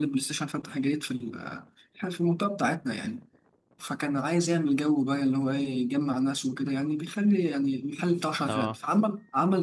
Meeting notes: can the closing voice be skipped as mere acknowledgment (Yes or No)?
Yes